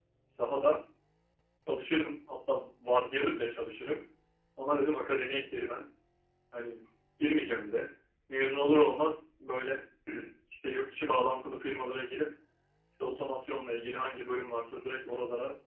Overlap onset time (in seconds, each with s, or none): none